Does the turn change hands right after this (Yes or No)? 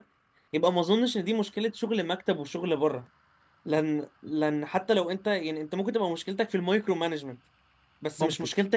No